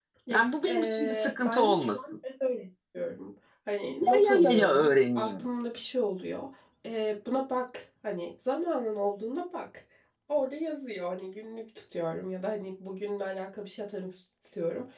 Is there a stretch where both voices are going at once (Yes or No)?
Yes